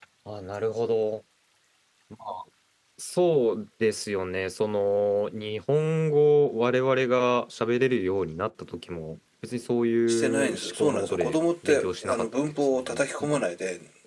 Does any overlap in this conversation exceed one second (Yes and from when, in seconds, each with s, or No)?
Yes, from 10.1 s